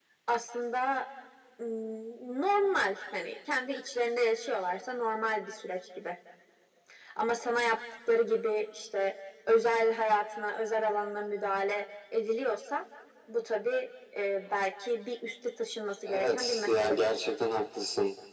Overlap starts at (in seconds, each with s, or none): 16.1 s